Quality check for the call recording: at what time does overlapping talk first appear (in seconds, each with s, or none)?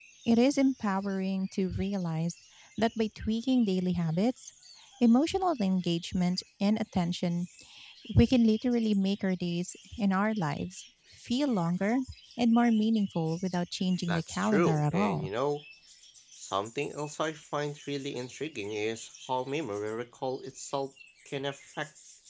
14.1 s